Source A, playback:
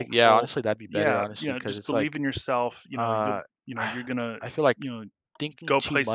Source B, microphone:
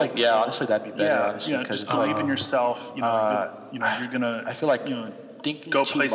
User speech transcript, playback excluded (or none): um